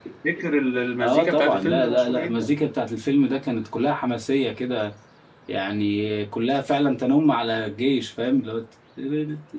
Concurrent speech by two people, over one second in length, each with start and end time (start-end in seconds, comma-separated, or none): 1.0-2.5